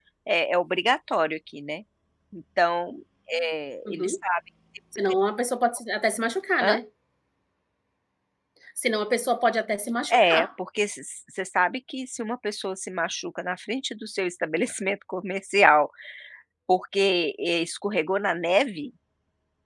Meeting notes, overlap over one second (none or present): none